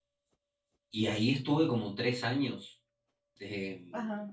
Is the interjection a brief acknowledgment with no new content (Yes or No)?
No